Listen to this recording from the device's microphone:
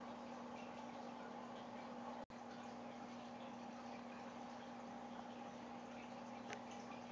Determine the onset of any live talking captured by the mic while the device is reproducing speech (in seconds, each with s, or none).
none